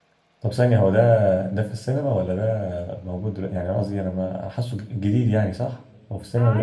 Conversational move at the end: taking over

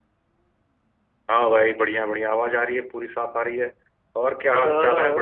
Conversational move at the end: taking over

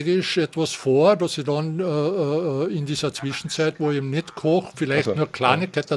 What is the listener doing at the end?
listening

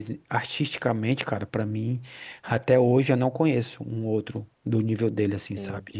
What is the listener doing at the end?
taking over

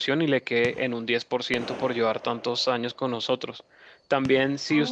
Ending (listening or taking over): listening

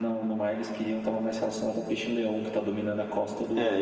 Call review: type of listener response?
taking over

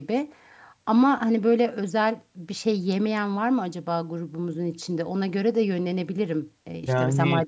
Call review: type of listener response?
listening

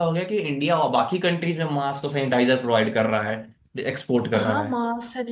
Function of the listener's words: taking over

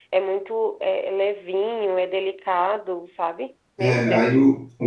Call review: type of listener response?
taking over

